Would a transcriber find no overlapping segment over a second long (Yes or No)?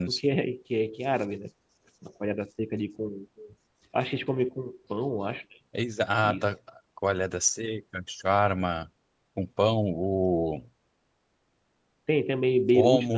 Yes